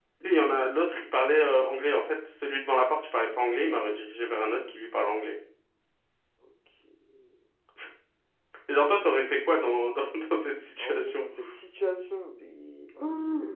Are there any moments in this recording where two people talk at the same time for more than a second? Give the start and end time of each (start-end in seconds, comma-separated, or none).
none